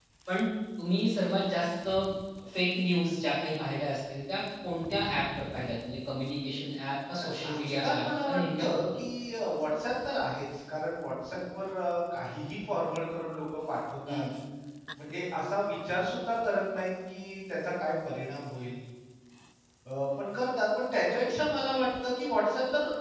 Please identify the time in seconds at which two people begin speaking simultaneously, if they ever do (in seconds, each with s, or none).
7.2 s